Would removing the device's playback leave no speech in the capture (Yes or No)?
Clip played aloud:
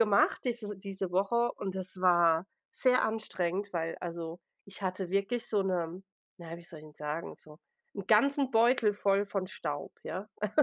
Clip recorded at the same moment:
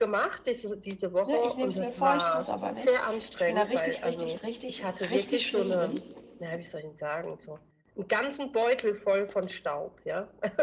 No